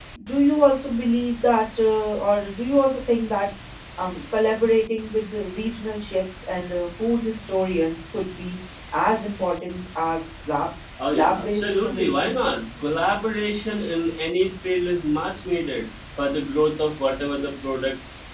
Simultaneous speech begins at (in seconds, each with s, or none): 11.0 s